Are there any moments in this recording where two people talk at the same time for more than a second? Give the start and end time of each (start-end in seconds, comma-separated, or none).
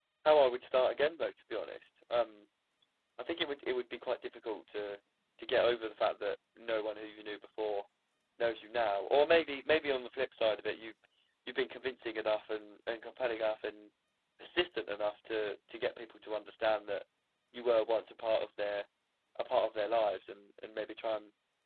none